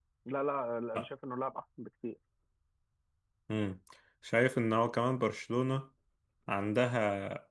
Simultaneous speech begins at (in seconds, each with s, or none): none